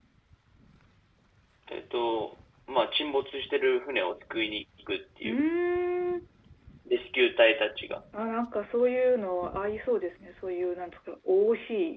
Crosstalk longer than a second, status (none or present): none